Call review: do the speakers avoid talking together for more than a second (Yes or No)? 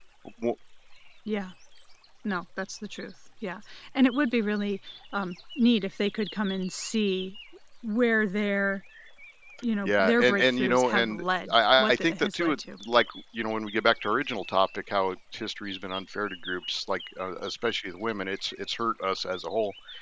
No